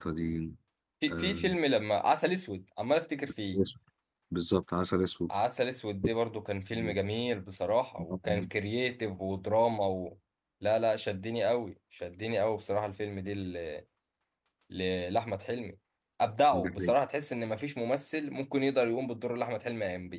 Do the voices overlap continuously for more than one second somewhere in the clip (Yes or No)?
No